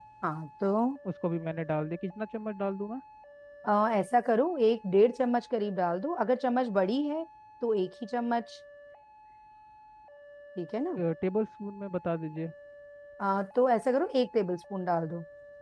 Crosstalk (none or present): none